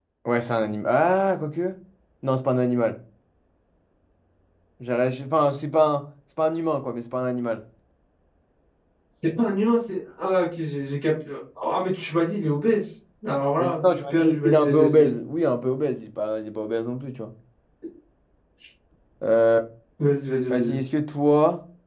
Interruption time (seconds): 13.6 s

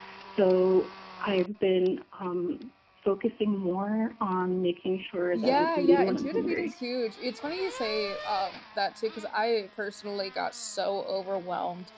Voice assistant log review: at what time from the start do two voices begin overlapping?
5.4 s

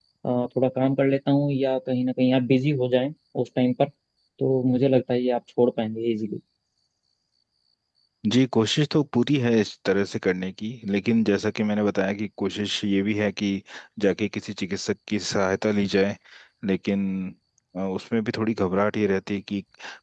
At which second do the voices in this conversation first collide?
none

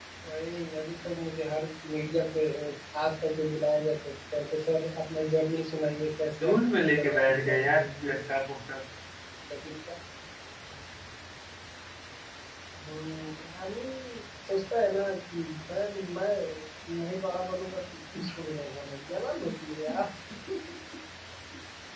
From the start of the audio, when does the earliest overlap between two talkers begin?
6.4 s

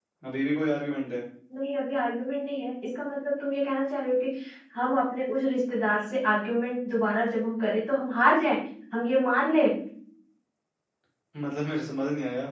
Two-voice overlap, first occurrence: none

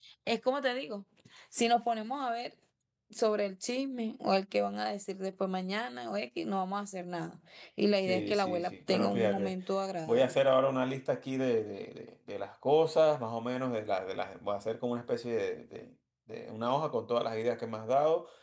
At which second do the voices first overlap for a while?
8.1 s

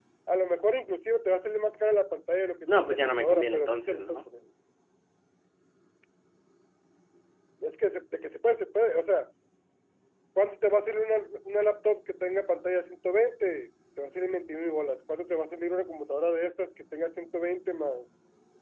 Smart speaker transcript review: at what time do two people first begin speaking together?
2.7 s

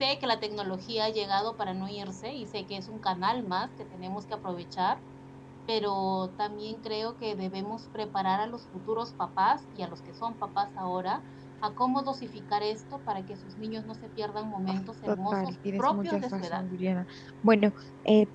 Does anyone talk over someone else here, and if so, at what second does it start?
15.1 s

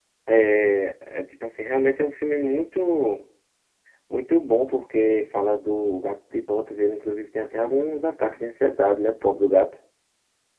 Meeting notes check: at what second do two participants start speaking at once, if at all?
none

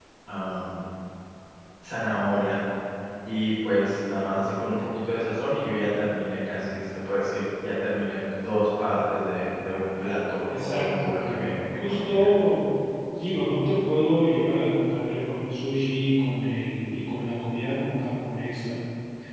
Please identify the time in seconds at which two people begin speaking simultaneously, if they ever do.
10.5 s

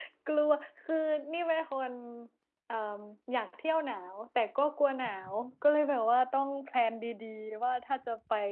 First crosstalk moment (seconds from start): none

